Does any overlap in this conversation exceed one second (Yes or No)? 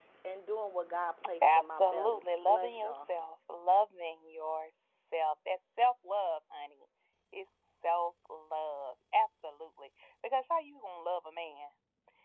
Yes